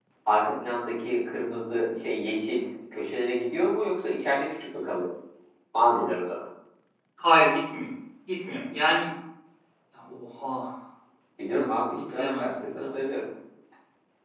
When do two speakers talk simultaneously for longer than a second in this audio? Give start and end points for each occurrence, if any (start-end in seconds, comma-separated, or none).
11.5-13.0